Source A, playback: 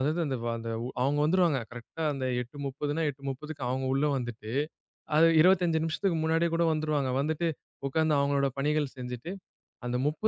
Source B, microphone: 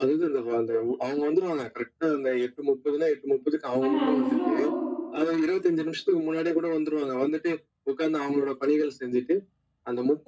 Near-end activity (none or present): present